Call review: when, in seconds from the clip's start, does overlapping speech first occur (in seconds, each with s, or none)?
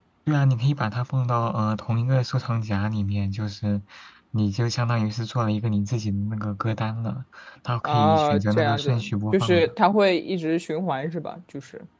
7.8 s